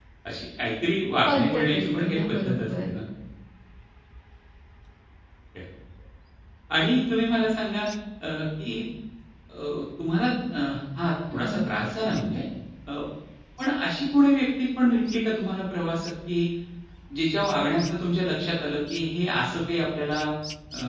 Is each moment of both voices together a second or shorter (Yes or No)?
No